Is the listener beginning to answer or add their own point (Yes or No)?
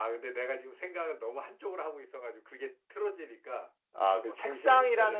Yes